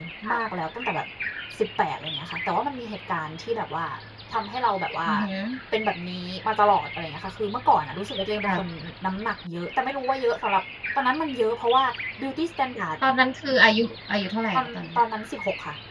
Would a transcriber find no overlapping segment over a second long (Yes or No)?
Yes